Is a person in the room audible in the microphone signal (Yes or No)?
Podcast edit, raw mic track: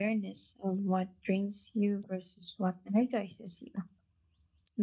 Yes